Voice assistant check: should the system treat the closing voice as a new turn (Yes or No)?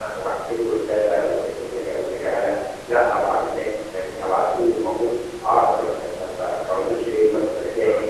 No